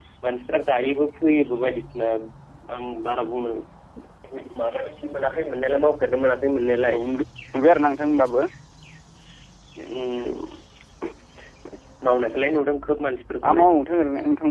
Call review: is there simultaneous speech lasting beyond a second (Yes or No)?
No